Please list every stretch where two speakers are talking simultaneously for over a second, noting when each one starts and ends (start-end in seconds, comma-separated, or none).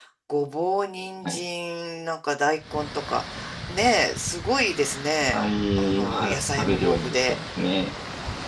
5.8-7.3